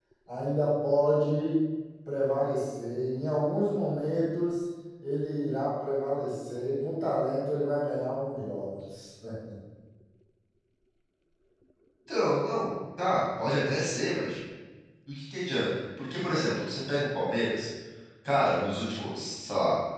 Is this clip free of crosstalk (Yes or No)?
Yes